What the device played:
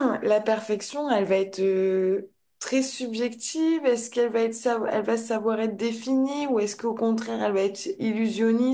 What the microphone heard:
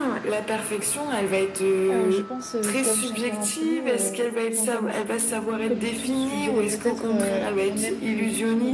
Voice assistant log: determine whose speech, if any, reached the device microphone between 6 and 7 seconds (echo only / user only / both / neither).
both